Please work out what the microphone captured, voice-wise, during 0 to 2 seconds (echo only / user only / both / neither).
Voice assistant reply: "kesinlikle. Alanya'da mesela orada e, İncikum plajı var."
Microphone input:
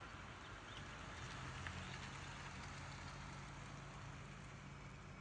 neither